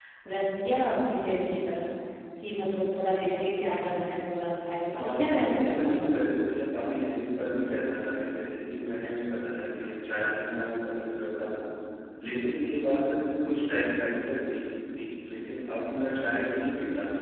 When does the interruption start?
5 s

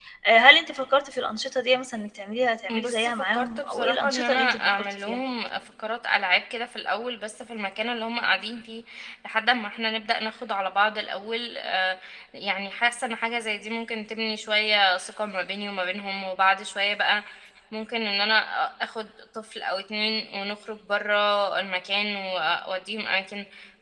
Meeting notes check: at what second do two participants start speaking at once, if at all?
3 s

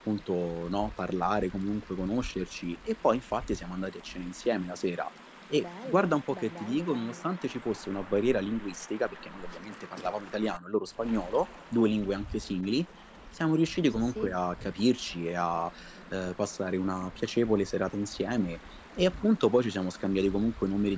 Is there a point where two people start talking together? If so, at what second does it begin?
6 s

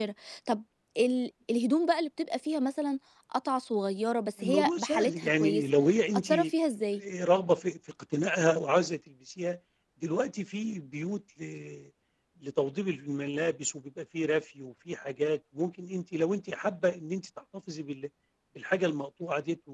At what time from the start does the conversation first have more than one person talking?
4 s

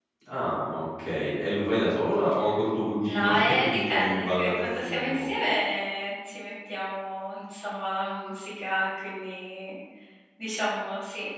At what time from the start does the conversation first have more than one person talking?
3 s

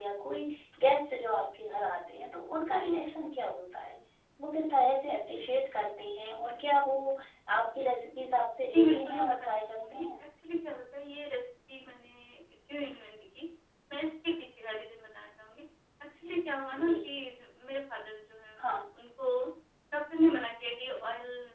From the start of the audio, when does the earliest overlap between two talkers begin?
9 s

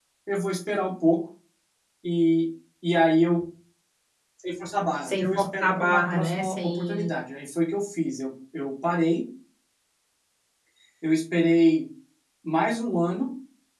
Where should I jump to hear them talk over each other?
5 s

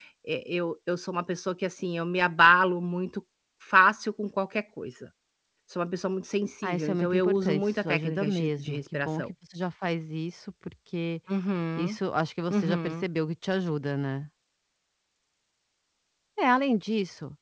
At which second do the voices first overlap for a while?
7 s

